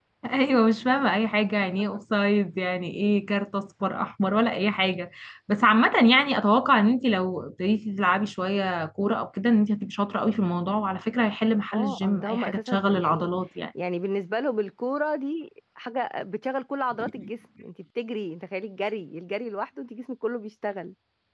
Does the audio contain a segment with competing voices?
Yes, from 11.7 s

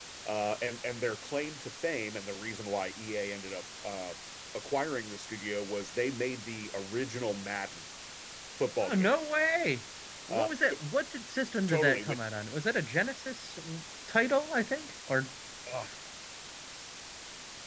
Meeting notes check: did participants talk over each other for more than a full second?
No

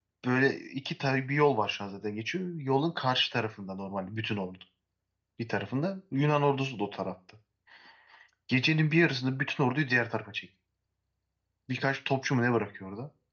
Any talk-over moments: No

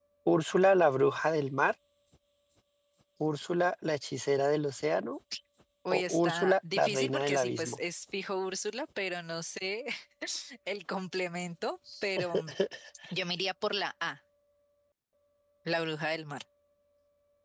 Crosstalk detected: Yes, from 5.9 s

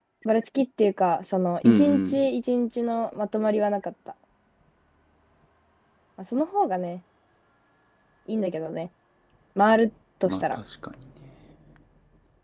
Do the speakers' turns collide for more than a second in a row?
No

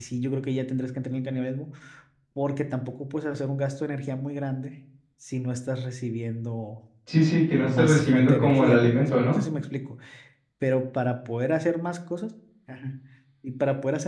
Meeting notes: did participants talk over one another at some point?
Yes, from 7.7 s

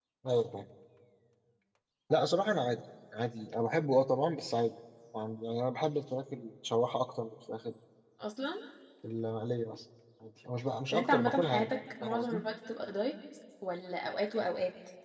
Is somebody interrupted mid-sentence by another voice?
Yes, from 10.9 s

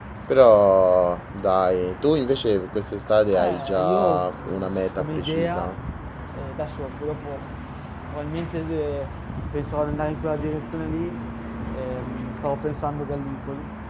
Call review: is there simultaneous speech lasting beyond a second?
Yes, from 3.3 s

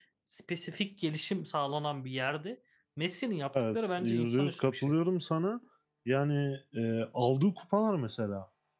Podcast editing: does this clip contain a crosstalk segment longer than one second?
Yes, from 3.5 s

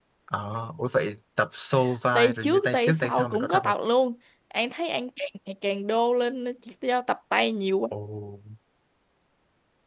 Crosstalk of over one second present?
Yes, from 2.1 s

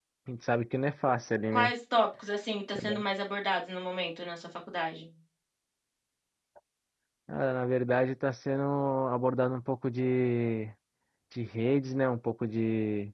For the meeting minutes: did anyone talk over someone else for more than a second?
No

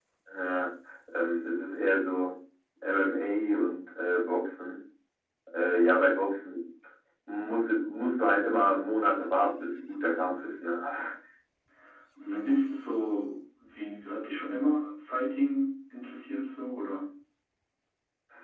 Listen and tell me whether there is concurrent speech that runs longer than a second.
No

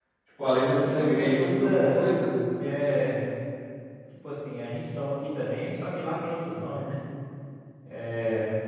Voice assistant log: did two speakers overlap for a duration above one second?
Yes, from 0.6 s

